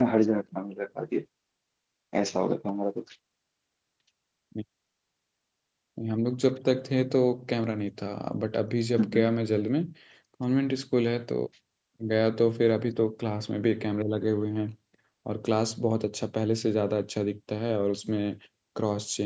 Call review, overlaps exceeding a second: none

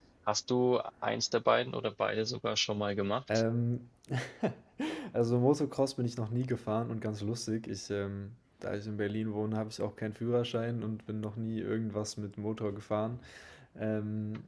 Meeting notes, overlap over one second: none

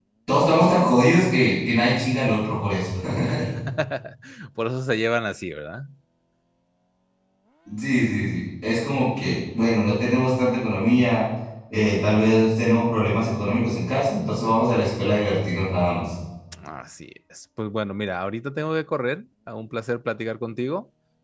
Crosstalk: none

